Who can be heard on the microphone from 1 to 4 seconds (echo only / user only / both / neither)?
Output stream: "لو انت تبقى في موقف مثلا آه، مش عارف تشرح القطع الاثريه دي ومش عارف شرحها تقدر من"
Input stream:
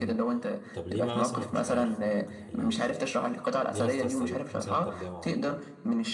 both